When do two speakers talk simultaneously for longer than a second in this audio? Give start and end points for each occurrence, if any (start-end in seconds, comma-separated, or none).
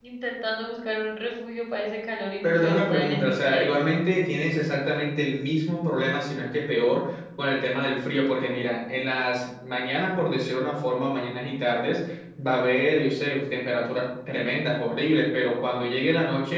2.4-3.8